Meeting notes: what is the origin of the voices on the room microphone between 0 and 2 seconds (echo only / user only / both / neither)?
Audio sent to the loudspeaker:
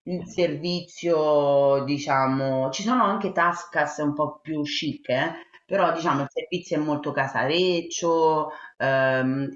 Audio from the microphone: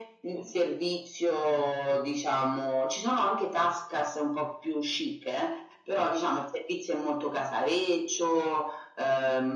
echo only